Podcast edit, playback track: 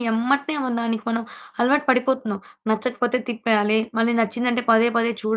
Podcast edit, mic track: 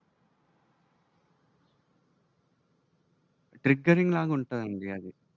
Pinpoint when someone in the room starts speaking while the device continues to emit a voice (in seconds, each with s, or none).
3.6 s